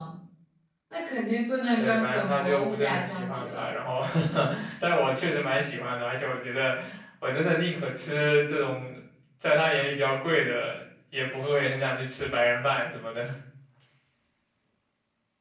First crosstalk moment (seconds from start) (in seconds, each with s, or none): 1.8 s